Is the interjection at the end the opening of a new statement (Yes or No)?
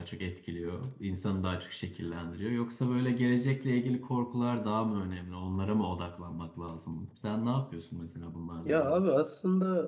Yes